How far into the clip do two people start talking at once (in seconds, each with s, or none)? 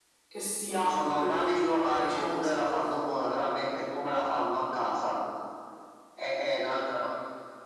0.8 s